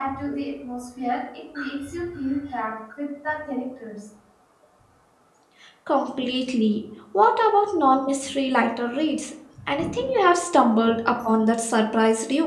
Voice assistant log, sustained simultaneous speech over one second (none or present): none